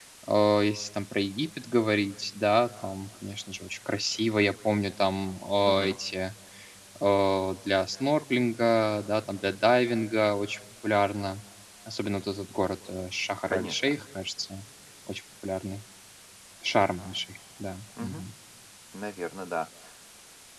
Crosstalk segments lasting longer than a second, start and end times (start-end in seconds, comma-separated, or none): none